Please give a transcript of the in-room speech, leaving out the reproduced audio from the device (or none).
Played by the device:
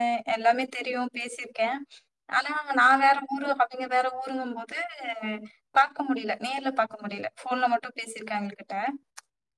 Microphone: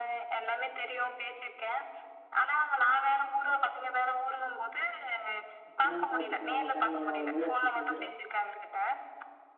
அப்பன பாத்துக்கோ நமக்கான நேர வரும்போது அத்தி செஞ்சிரணு